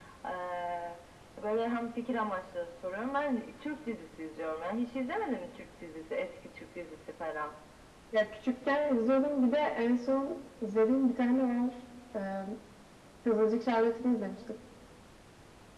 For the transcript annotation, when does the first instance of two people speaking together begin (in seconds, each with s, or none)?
none